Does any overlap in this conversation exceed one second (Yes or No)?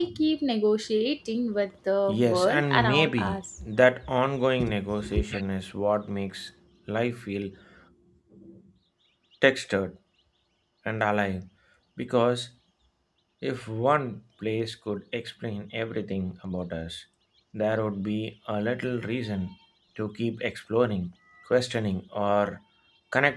Yes